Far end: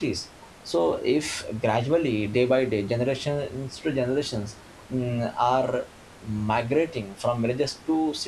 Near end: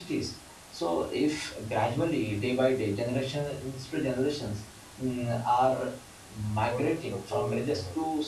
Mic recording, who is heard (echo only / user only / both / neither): both